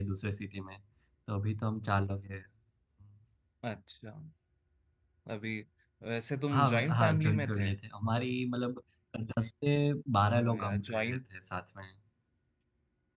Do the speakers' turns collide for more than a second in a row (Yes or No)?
Yes